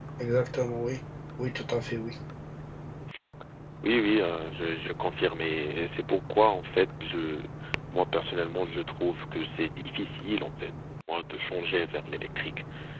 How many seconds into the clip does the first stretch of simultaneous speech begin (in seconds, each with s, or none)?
none